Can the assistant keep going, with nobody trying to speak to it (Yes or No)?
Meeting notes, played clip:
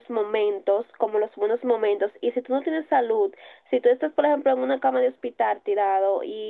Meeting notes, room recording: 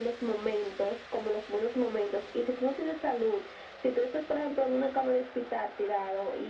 Yes